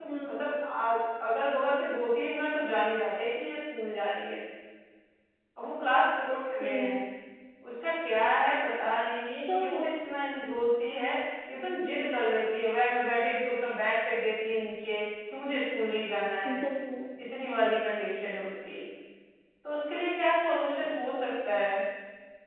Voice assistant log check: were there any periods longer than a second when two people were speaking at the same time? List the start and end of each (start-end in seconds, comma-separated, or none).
none